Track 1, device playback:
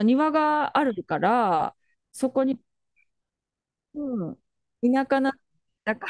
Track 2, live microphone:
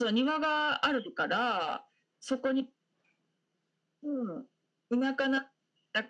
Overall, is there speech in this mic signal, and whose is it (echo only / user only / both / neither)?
echo only